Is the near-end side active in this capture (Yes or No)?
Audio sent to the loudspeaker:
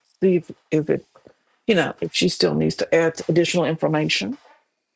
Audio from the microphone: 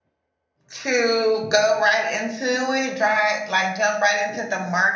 Yes